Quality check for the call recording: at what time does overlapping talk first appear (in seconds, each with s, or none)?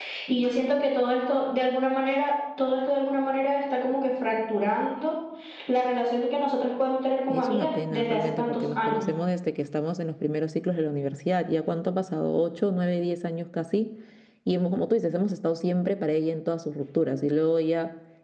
7.3 s